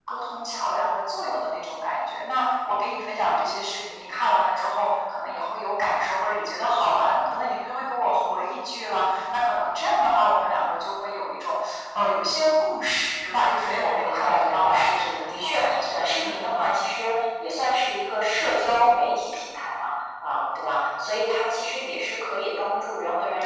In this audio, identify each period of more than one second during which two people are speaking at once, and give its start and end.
13.7-16.5

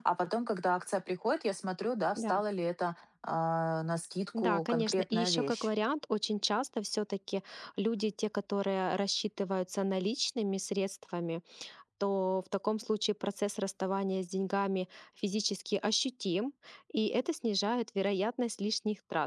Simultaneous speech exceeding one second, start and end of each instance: 4.4-5.7

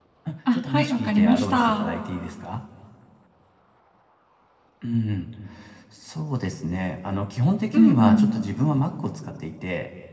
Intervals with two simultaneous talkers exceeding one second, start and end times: 0.5-1.9

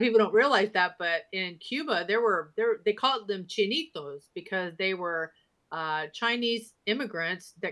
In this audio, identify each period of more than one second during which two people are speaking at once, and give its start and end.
none

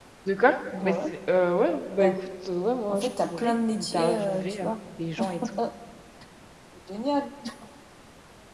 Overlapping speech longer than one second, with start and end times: 2.9-4.7

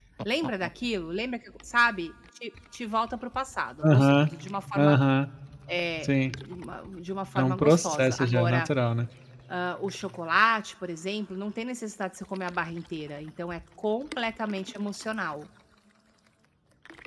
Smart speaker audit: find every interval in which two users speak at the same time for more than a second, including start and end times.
7.4-8.7

